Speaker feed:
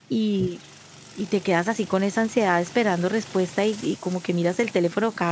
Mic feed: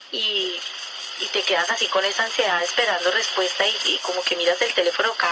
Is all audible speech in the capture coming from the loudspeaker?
Yes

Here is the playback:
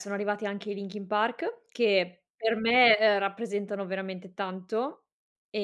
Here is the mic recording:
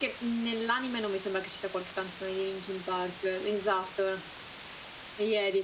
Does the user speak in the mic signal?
Yes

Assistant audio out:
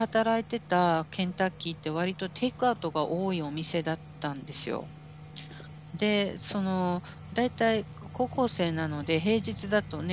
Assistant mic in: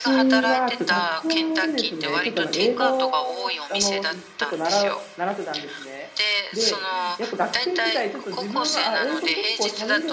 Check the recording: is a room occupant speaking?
Yes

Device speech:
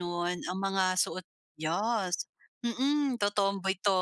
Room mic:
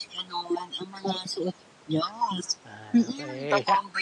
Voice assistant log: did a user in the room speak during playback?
Yes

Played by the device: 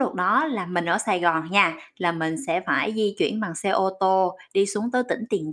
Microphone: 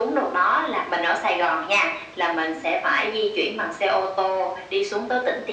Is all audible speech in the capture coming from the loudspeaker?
Yes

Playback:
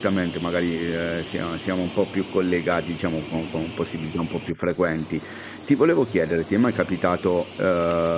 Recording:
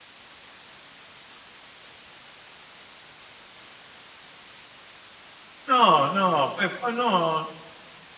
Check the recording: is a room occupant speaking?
Yes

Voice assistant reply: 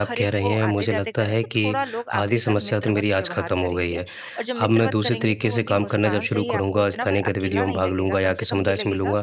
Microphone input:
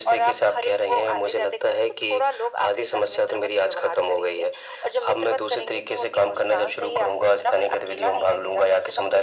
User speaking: No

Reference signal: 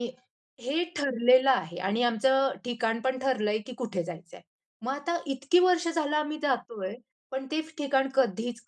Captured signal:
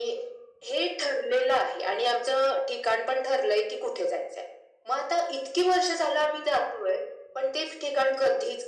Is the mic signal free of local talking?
Yes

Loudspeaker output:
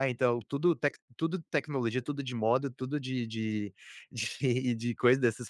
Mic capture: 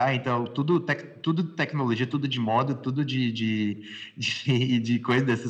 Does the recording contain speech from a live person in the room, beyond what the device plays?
No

